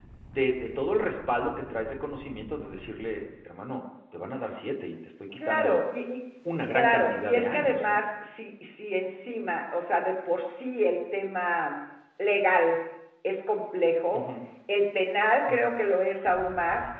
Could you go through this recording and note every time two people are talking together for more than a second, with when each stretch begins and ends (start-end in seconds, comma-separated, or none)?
6.7-8.0